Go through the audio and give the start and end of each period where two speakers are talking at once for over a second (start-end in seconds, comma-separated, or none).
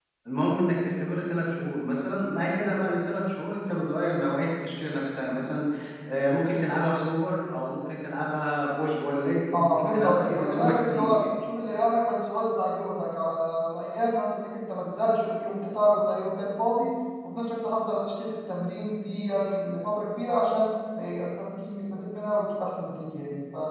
9.5-11.2